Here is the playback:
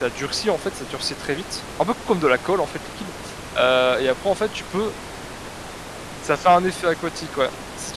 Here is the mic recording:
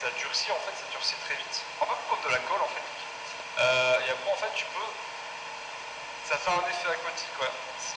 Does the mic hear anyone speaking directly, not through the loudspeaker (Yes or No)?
No